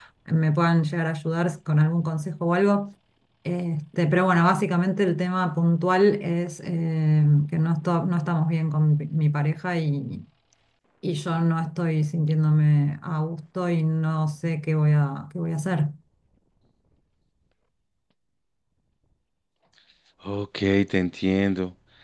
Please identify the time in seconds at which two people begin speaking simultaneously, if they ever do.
none

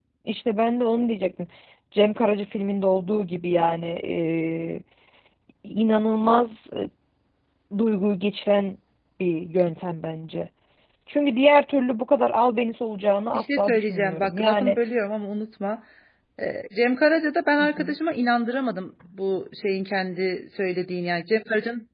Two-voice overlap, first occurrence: 13.3 s

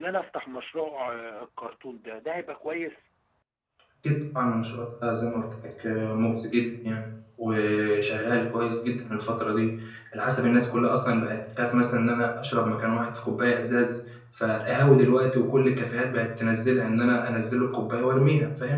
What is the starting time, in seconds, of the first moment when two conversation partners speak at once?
none

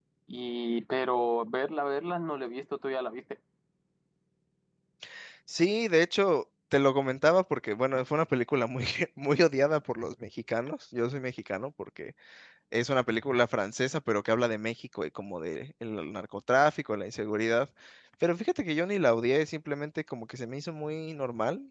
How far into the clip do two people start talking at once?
none

